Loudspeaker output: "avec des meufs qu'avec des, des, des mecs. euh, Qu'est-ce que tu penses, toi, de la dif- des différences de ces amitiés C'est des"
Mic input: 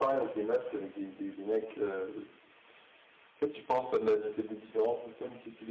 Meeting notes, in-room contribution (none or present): none